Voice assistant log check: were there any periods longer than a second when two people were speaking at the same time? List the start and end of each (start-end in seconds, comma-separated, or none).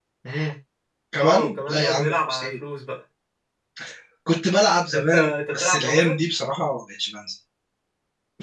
1.2-2.5, 4.9-6.1